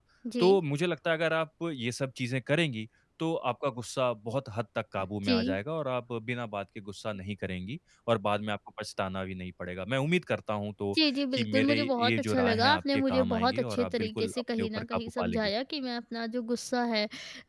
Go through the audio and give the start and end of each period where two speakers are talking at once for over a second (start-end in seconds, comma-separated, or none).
11.3-15.5